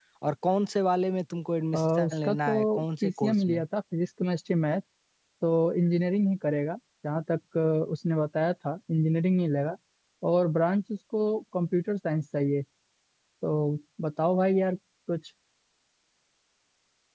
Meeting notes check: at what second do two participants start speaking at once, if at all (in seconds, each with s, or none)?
1.7 s